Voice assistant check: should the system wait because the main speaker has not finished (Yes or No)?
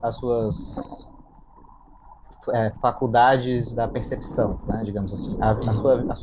Yes